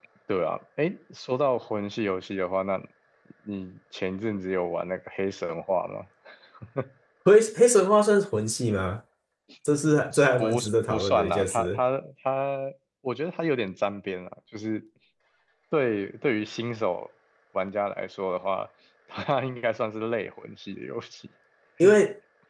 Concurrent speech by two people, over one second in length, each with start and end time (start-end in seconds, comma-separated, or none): 10.4-11.8